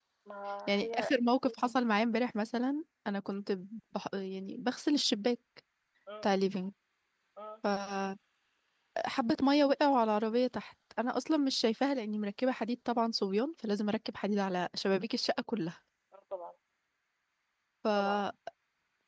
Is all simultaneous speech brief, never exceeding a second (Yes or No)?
Yes